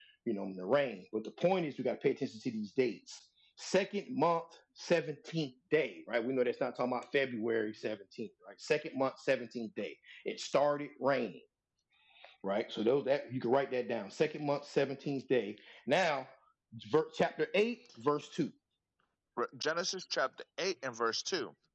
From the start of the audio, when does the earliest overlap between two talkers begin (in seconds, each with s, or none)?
none